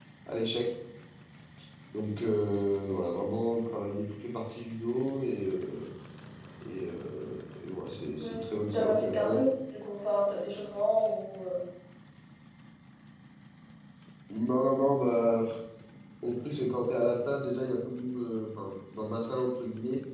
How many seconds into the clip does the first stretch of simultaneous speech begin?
8.2 s

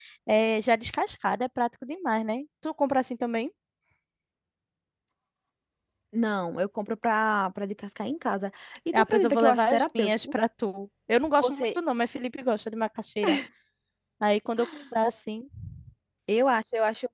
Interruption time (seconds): 8.9 s

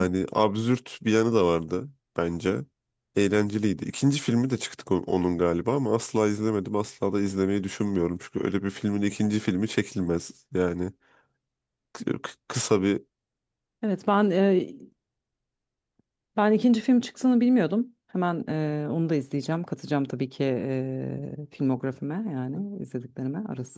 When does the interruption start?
none

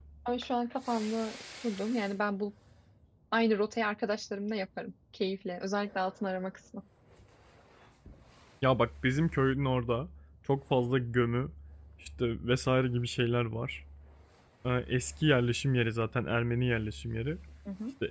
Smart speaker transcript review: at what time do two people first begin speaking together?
none

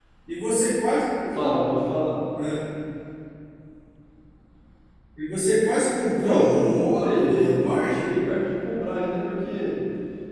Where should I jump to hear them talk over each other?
6.2 s

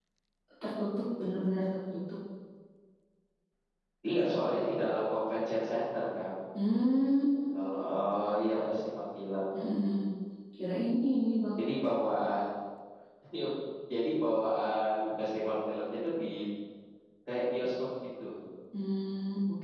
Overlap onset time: none

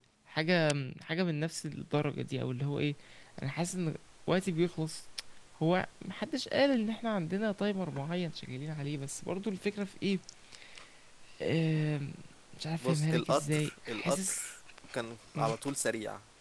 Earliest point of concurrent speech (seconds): 12.8 s

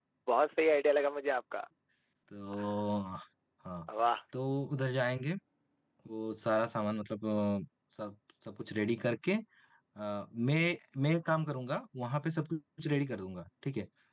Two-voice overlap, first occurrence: none

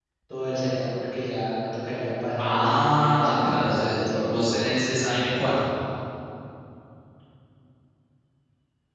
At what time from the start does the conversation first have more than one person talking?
2.4 s

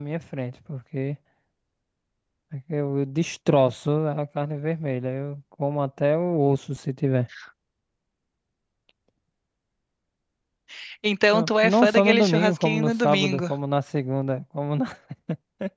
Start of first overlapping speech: 11.3 s

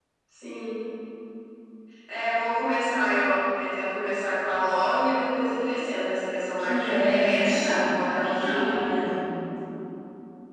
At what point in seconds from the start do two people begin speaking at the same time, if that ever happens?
6.6 s

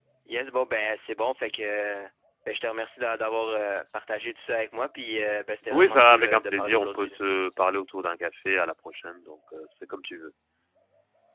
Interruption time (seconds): 5.7 s

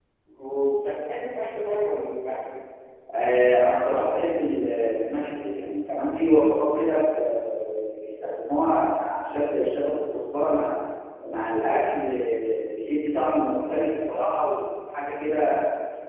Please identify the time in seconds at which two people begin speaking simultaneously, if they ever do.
none

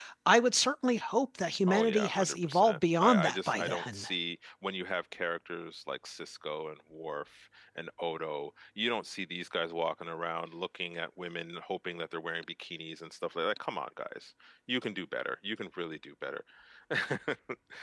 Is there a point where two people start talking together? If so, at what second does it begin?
1.7 s

